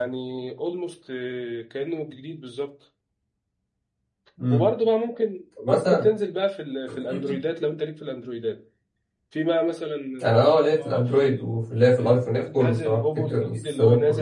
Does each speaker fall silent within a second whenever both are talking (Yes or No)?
No